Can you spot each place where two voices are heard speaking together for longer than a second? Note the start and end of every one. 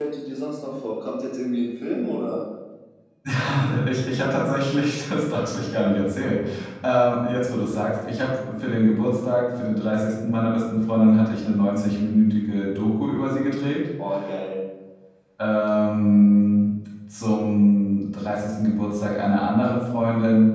none

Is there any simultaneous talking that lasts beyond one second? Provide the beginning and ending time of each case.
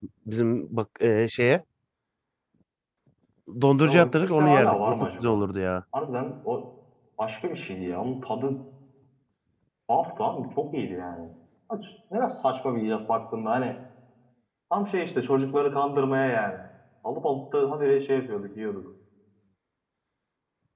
3.8-5.4

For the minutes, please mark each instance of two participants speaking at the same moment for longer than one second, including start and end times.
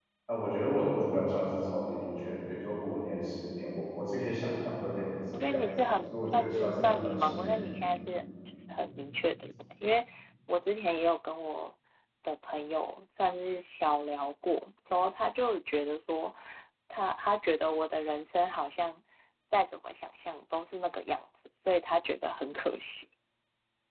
5.3-7.6

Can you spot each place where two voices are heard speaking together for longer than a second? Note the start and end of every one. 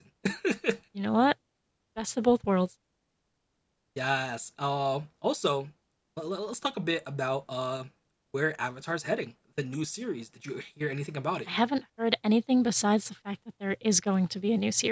none

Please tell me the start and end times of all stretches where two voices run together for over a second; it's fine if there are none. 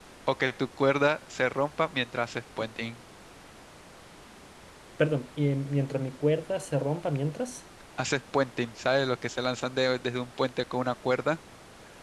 none

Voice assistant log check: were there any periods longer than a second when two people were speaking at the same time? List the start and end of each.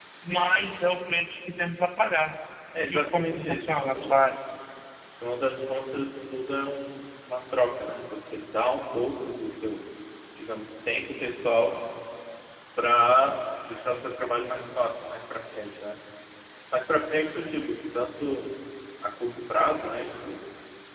2.9-4.2

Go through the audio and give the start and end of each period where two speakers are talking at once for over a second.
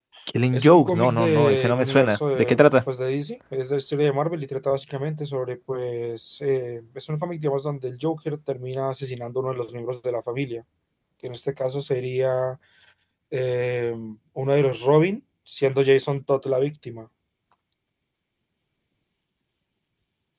0.5-2.6

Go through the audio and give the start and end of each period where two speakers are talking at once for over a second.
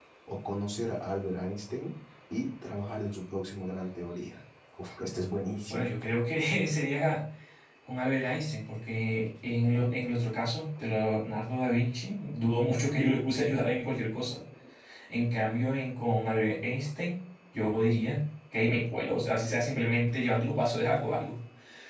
none

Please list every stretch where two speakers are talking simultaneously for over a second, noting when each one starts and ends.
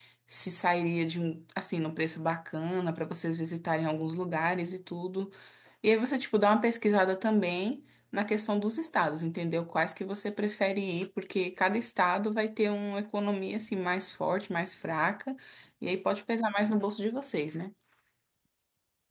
none

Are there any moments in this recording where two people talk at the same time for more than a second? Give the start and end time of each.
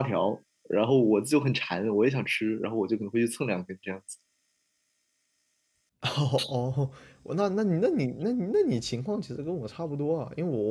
none

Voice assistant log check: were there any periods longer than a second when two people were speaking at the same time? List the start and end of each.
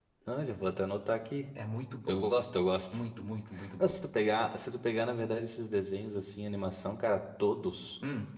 none

